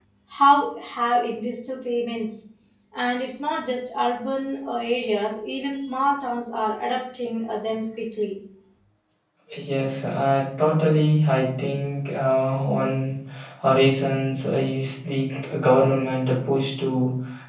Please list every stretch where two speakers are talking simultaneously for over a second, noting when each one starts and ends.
none

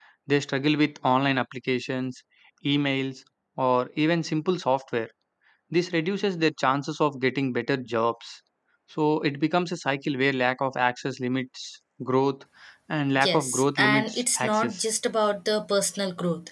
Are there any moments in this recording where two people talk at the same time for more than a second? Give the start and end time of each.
13.2-14.9

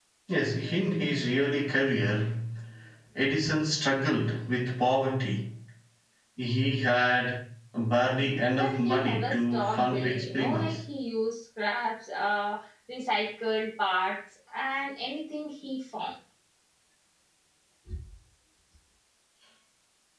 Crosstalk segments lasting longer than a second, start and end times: 8.5-10.8

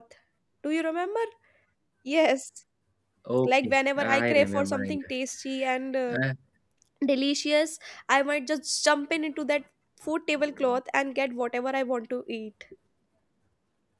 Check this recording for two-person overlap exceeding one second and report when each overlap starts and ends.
3.5-5.0

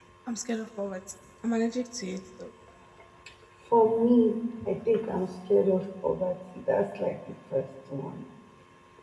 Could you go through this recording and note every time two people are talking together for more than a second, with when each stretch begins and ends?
none

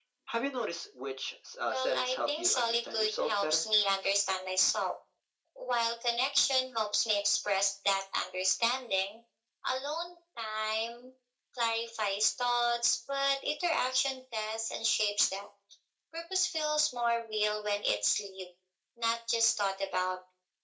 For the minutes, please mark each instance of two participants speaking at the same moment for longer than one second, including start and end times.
1.7-3.6

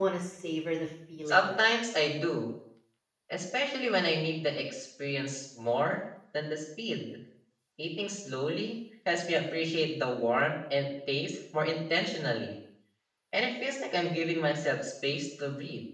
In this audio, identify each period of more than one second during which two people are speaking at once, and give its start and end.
none

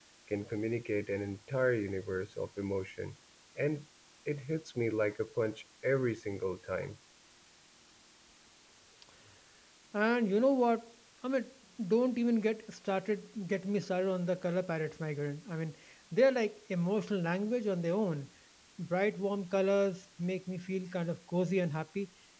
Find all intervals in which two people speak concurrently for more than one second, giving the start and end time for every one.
none

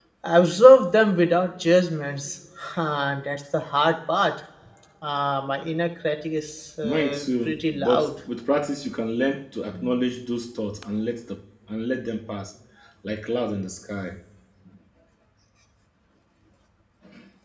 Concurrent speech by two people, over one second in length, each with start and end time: 6.8-8.1

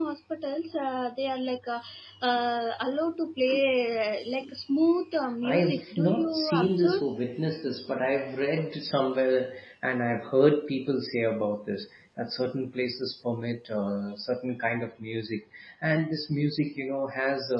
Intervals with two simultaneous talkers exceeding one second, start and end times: 5.4-7.0

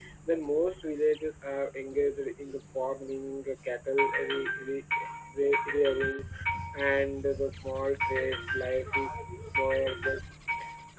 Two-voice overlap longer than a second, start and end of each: none

